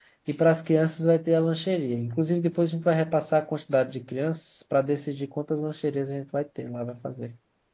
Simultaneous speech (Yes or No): No